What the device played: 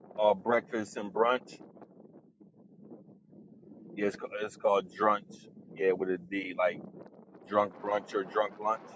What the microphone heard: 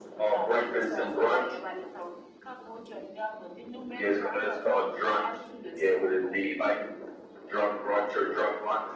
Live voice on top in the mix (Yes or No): No